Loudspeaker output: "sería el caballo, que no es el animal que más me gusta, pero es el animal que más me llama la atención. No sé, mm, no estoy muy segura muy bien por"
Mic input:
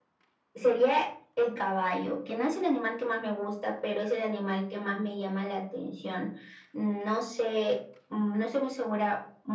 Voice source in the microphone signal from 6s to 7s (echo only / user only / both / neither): echo only